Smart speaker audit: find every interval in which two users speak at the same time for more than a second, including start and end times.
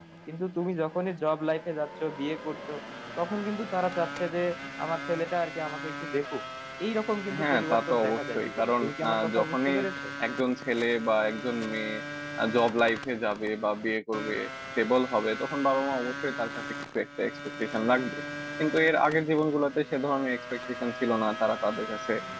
7.4-9.8

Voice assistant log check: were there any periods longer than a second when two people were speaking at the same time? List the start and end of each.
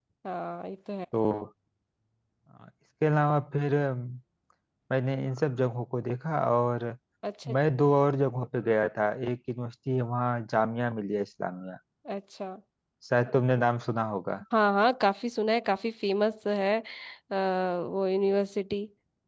none

